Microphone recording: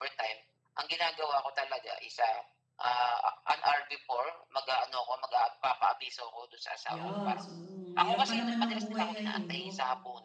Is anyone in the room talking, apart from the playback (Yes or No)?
Yes